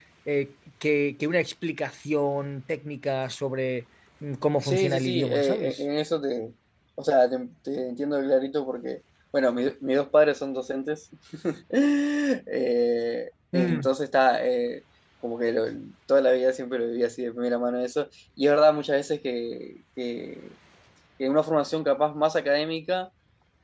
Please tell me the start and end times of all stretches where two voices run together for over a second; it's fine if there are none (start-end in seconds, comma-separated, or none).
4.6-5.8